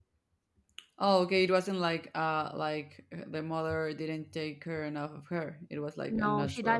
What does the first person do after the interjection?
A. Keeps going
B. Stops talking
B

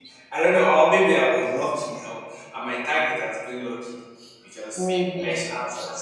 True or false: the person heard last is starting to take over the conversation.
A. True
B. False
B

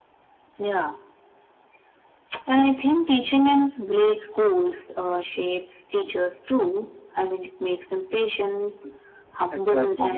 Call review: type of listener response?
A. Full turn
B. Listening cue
B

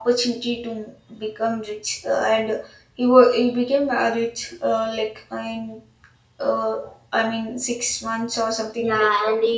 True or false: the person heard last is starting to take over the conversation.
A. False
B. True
B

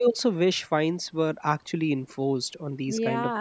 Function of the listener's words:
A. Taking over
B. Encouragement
A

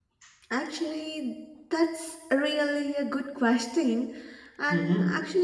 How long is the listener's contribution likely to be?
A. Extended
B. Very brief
B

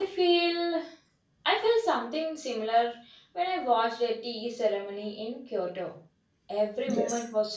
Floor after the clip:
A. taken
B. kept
B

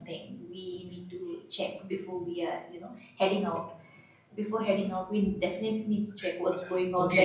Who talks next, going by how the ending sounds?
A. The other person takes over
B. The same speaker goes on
A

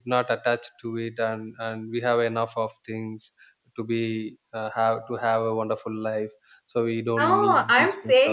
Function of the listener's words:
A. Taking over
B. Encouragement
A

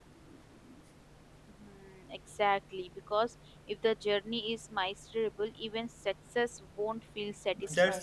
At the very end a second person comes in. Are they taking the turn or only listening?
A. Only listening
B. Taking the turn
B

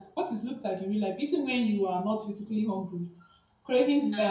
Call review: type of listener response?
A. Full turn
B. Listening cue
B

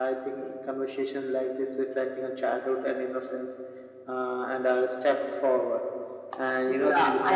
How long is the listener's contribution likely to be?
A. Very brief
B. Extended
B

